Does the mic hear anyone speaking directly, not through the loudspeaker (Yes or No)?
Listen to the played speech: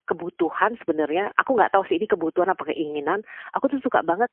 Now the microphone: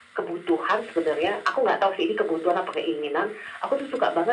No